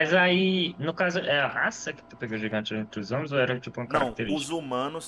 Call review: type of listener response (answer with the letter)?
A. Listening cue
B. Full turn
B